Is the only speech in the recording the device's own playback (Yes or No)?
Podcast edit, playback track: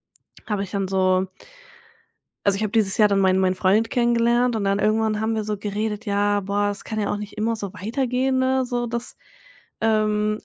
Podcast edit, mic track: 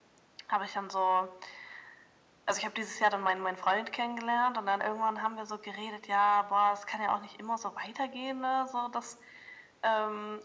Yes